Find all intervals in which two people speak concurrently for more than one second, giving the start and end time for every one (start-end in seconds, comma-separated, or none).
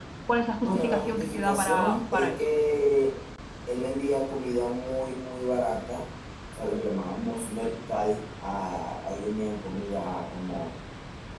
0.6-2.4